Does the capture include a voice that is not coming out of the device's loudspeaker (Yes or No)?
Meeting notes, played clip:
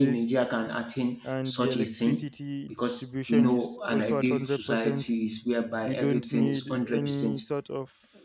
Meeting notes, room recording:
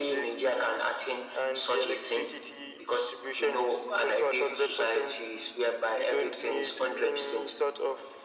No